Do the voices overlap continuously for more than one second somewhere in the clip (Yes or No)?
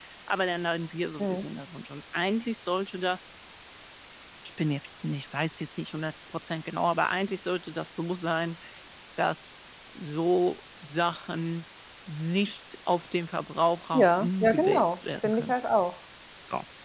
Yes